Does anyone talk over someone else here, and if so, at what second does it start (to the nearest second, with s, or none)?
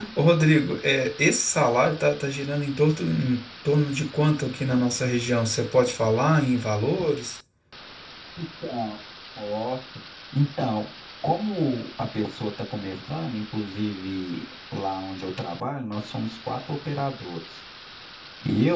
none